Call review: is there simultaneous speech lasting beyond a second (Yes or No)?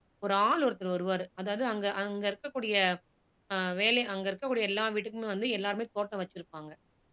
No